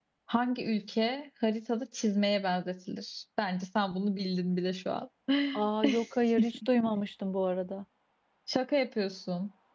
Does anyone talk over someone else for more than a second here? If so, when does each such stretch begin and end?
none

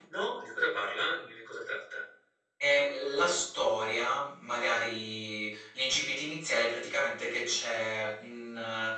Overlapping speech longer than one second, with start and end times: none

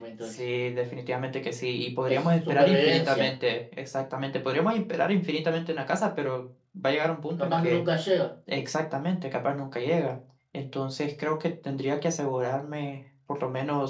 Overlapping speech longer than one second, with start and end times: 2.1-3.3

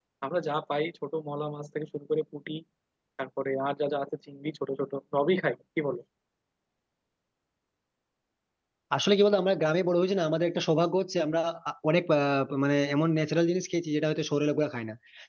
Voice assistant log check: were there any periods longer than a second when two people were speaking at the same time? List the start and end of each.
none

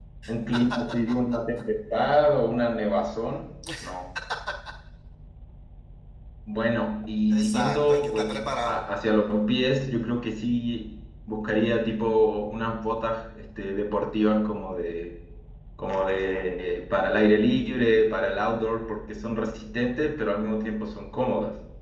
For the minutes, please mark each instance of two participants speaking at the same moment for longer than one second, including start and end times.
7.3-8.8

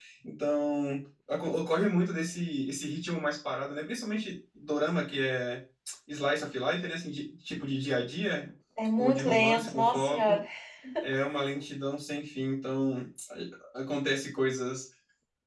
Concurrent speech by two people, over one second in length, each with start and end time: 9.0-10.4

